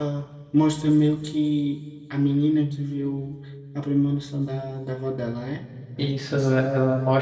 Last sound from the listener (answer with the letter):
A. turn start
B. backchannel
A